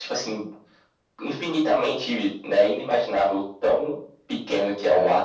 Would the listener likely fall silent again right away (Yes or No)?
Yes